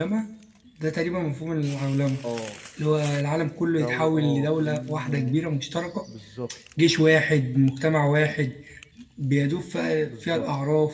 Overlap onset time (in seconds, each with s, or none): 3.8 s